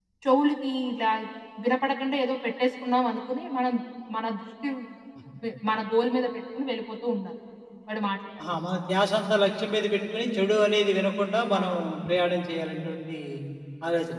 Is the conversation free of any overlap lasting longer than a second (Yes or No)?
Yes